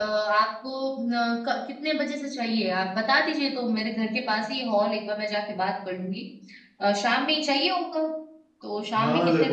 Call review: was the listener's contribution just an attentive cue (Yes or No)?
No